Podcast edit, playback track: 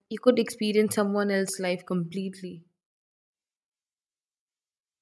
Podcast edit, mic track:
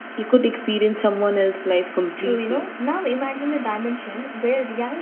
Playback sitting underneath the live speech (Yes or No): No